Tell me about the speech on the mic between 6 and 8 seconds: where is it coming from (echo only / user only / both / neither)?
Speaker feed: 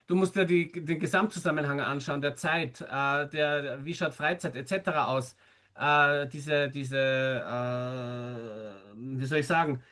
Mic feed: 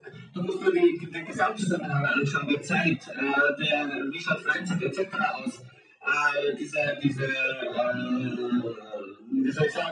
echo only